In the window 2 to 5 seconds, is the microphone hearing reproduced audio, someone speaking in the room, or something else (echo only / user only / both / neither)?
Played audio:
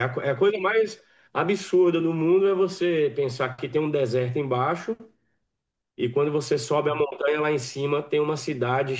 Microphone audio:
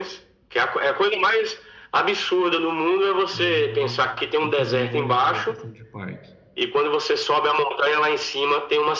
both